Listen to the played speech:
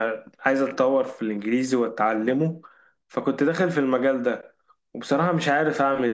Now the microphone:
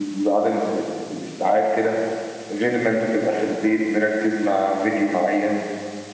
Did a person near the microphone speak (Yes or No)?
Yes